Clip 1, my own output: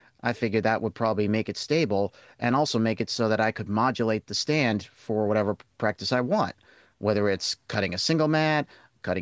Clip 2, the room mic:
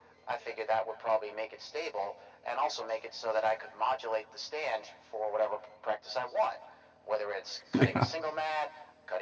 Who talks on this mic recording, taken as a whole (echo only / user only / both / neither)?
both